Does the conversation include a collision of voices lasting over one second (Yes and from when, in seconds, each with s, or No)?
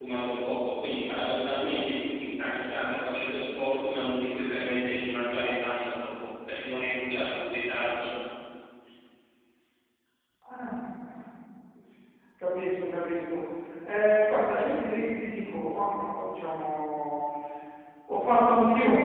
No